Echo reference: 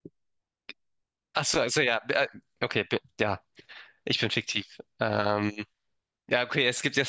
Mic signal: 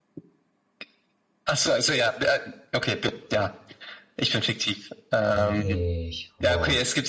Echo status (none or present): present